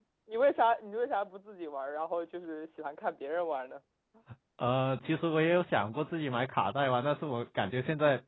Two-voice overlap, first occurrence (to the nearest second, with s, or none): none